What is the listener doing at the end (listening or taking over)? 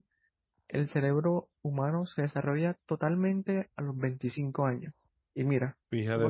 listening